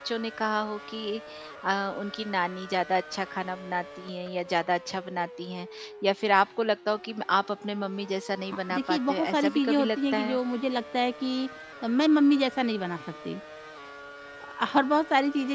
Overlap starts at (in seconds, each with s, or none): 8.7 s